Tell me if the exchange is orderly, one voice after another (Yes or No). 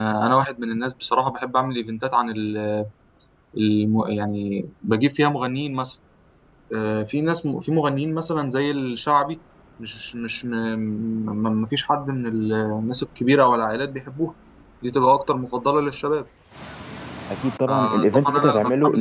No